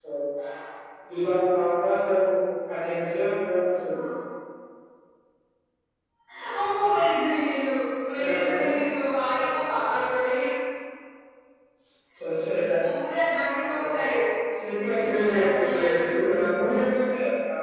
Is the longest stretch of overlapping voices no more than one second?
No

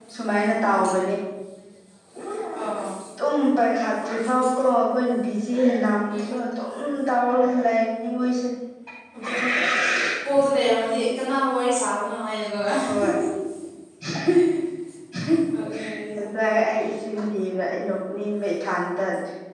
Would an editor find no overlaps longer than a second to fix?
Yes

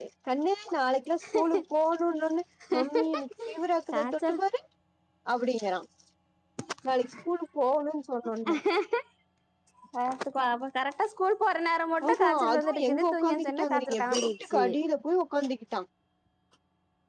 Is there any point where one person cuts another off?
Yes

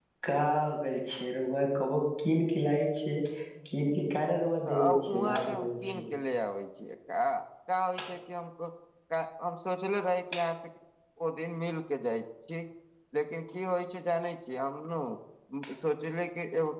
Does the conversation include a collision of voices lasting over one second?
Yes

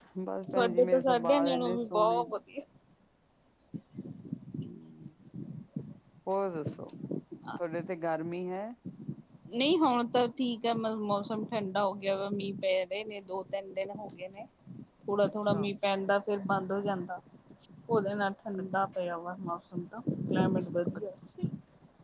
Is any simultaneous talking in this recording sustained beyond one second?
Yes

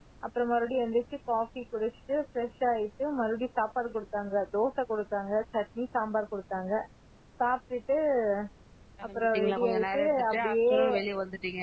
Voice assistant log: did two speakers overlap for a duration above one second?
Yes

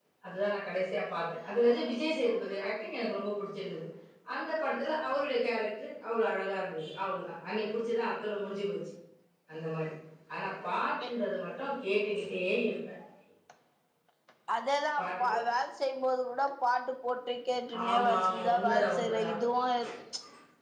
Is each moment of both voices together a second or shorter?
No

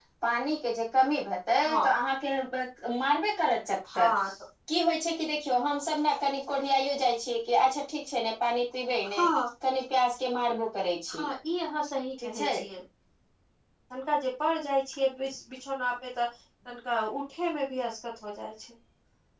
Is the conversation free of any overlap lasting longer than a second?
Yes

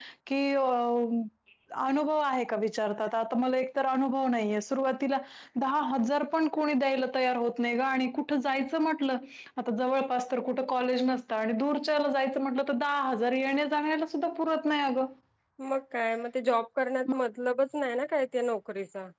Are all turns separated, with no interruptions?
Yes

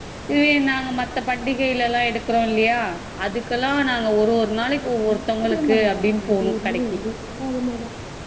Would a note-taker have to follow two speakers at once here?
Yes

